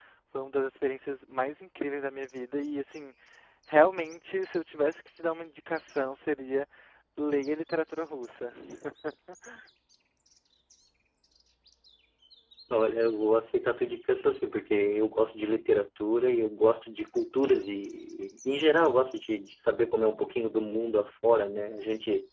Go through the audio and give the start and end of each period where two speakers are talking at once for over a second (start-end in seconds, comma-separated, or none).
none